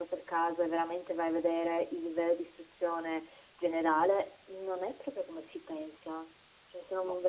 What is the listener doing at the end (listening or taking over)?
listening